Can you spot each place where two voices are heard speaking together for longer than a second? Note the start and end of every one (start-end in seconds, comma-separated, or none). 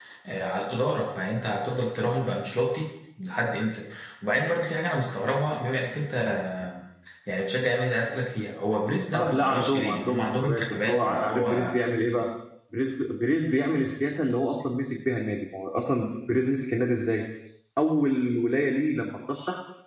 9.1-11.8